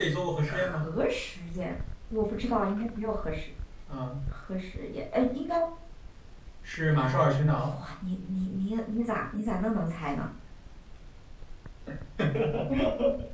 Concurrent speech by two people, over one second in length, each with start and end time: none

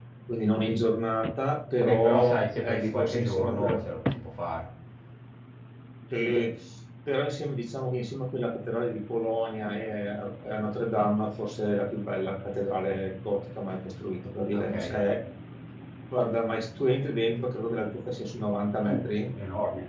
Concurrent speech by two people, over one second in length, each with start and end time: 1.8-3.8

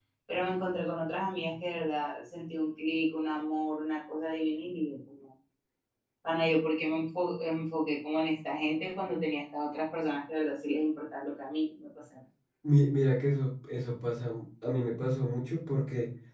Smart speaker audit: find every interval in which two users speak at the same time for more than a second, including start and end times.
none

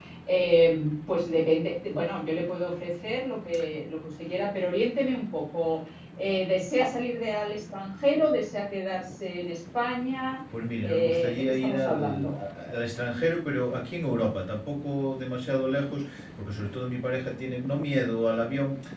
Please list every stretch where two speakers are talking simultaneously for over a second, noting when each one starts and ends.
10.8-12.3

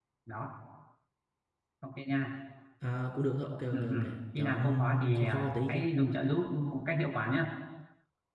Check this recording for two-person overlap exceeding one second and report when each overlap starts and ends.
4.4-5.8

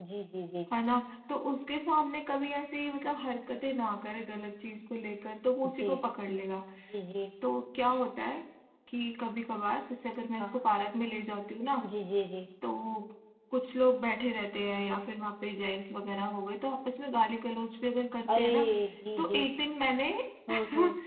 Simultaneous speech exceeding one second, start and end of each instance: none

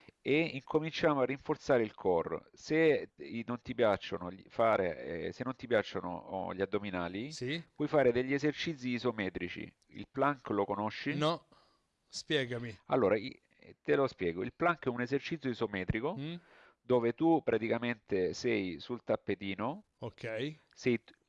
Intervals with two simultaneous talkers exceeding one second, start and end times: none

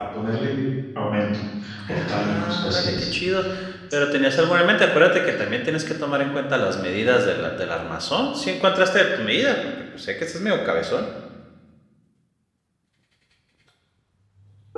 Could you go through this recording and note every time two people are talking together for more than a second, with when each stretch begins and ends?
1.9-3.1

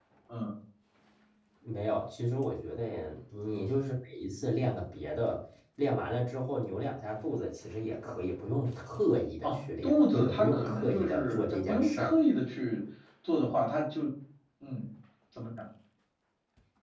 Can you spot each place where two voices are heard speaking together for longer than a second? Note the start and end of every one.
9.4-12.2

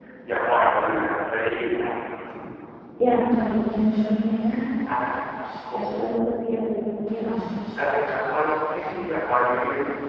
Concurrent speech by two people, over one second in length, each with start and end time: none

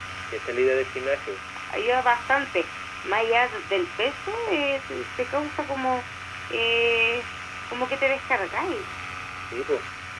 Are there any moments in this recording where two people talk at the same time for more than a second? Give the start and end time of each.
none

